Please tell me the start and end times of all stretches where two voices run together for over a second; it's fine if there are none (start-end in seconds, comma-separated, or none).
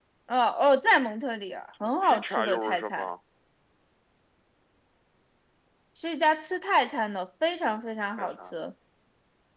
1.8-3.1